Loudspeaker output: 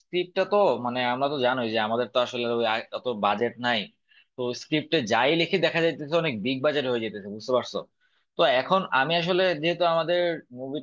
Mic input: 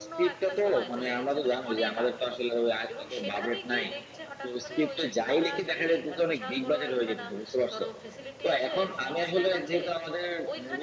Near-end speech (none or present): present